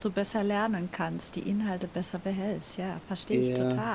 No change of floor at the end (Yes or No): No